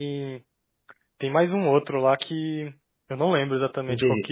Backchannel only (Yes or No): No